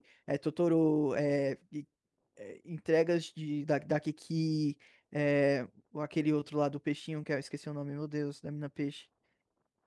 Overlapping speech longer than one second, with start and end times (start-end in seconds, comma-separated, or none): none